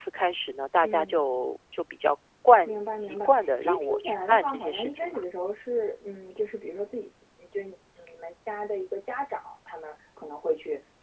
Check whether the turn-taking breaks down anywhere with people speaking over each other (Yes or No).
Yes